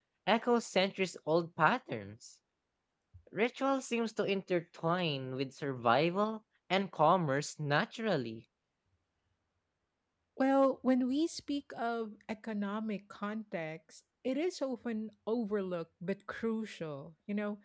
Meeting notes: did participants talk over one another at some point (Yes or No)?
No